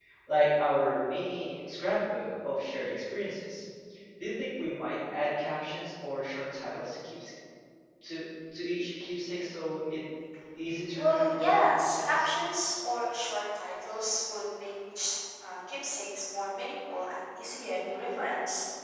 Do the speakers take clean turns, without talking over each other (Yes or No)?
No